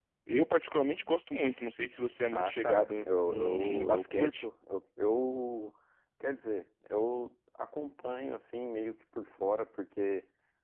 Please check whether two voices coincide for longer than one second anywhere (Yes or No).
Yes